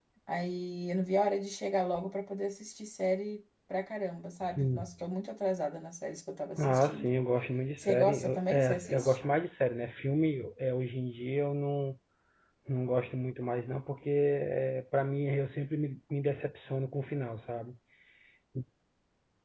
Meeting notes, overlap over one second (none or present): present